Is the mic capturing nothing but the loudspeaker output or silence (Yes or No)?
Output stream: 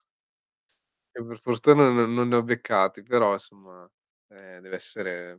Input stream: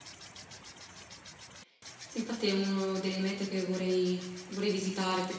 No